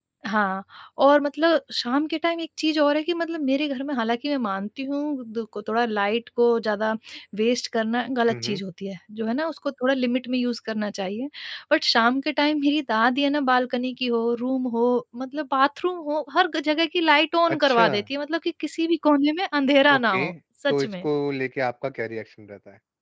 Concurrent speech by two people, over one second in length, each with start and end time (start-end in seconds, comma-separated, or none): none